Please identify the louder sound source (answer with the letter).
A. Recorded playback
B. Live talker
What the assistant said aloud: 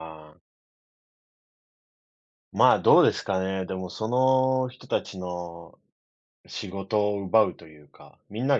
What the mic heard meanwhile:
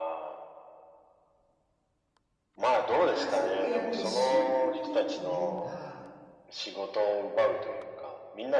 A